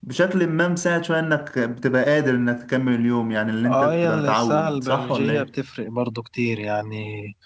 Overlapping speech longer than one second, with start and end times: 3.6-5.5

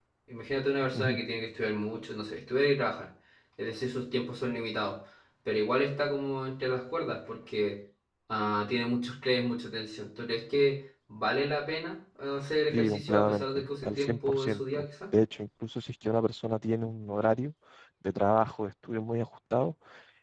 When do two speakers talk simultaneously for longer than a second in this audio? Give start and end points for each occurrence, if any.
12.7-14.8

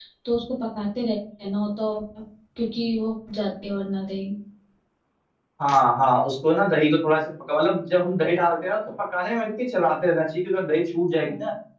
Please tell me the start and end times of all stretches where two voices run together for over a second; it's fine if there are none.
none

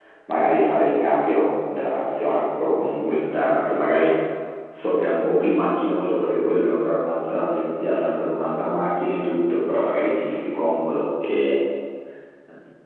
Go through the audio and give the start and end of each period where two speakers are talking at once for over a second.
none

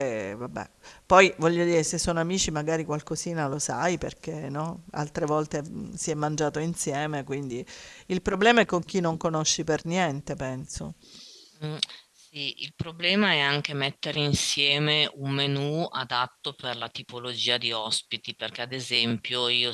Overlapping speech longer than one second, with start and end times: none

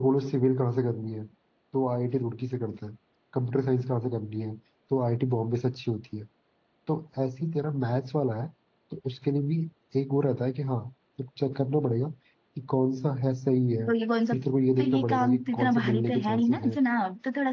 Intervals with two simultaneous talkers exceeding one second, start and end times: 14.8-16.8

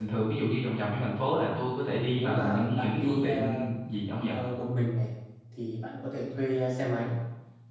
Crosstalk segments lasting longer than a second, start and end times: 2.1-3.6

